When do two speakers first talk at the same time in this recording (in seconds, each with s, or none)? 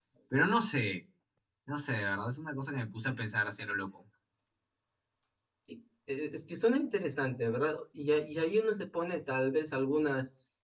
none